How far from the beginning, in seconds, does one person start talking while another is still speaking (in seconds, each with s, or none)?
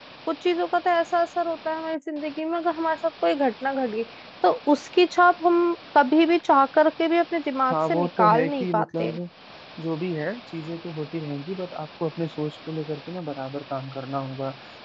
7.7 s